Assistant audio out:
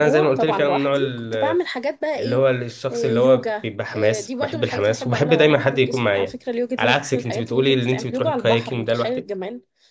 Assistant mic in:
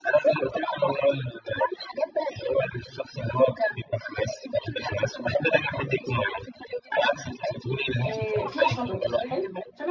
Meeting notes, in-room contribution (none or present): present